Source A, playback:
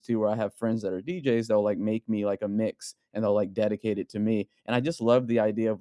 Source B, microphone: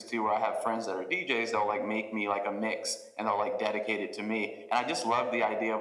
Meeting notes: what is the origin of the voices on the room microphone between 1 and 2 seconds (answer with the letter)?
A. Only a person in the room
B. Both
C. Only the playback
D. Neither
C